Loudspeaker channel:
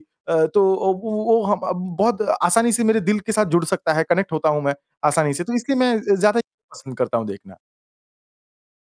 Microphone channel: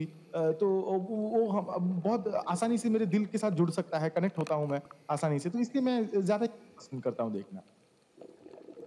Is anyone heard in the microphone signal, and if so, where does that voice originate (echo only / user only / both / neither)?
echo only